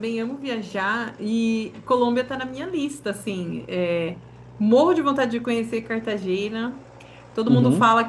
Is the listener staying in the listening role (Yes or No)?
Yes